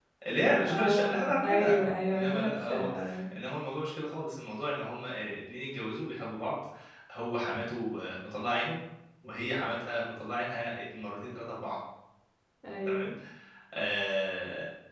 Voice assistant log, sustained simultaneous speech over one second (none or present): present